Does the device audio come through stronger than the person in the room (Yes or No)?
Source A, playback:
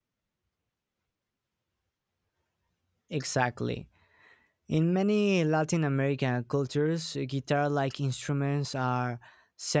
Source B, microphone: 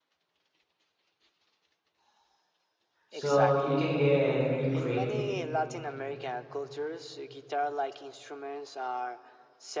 No